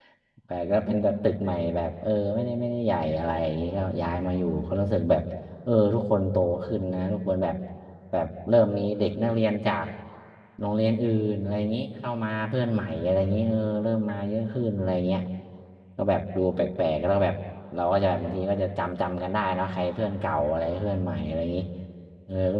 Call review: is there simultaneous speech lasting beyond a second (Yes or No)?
No